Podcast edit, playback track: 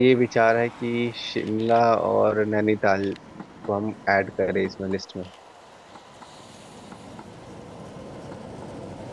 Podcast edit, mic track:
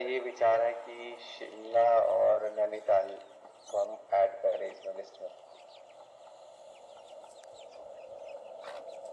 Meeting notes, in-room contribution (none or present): none